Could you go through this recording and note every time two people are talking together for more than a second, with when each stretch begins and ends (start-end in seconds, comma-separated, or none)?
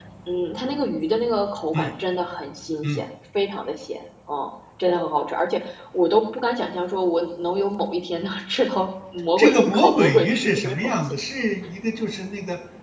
9.4-11.2